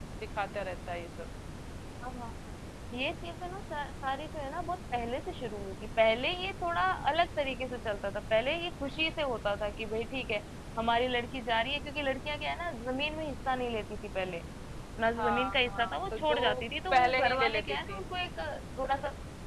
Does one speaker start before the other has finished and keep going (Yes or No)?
Yes